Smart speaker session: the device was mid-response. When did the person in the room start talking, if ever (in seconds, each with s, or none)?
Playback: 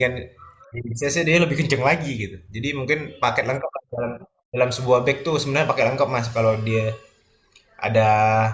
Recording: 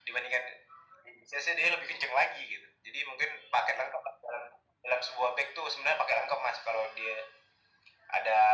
none